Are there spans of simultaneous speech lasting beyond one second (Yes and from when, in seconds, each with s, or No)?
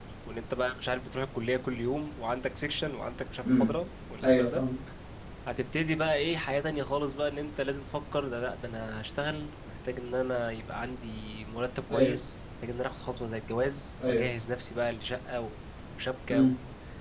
No